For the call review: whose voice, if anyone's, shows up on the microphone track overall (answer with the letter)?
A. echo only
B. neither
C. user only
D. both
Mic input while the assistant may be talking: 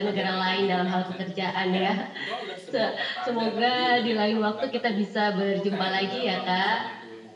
D